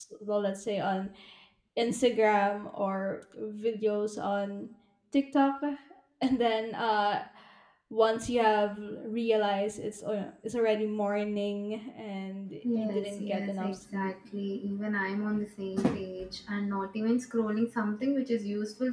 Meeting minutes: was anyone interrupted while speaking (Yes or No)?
Yes